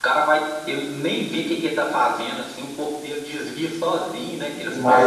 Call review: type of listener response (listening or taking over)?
taking over